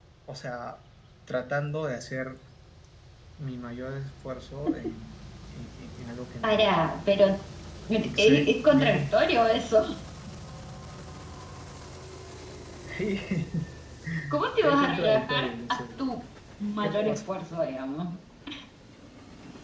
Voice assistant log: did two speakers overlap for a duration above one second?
Yes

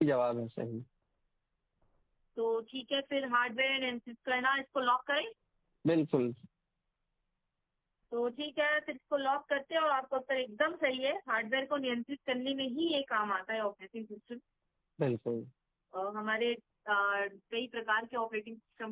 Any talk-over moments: No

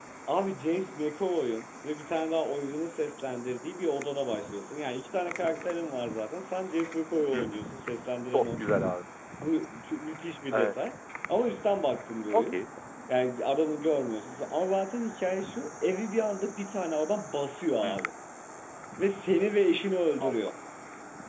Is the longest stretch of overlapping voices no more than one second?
Yes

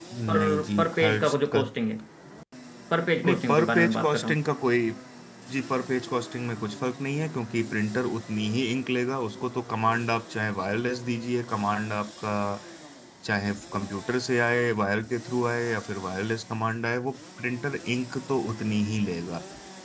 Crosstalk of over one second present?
Yes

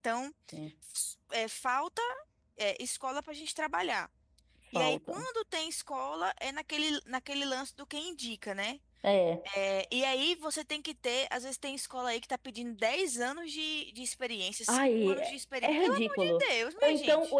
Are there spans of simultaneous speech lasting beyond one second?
Yes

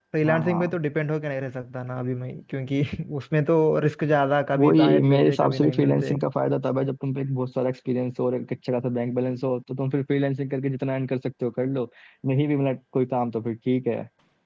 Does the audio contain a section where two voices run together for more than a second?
Yes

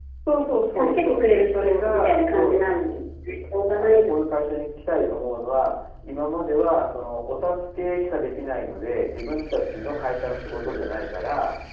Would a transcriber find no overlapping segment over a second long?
No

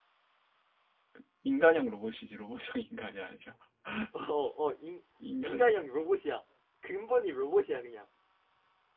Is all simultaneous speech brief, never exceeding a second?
Yes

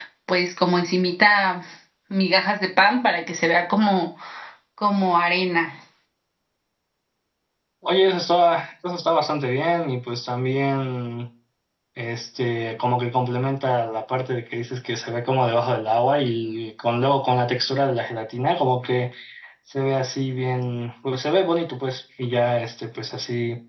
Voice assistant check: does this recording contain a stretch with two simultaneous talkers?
No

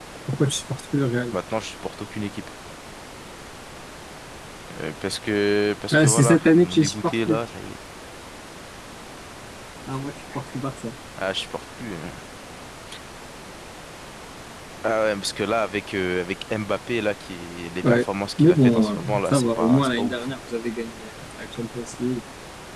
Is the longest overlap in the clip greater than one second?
Yes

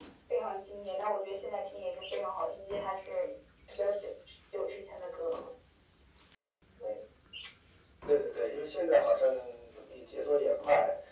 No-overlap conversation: Yes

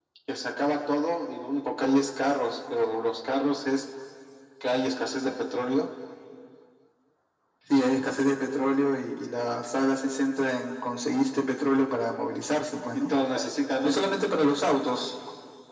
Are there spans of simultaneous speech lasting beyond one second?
No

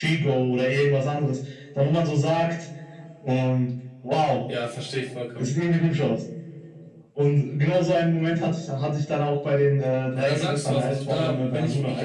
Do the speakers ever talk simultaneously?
Yes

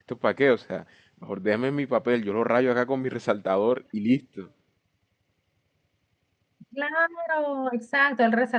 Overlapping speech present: No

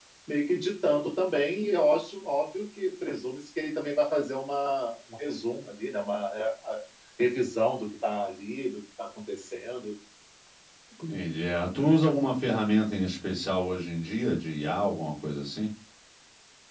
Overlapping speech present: No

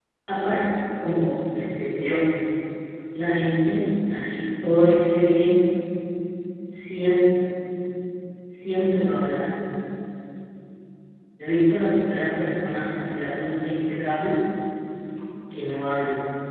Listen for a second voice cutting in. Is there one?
No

